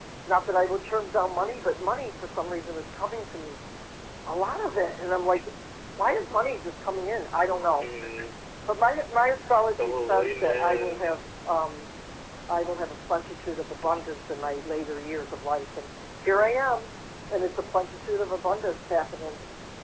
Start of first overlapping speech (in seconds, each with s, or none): 9.8 s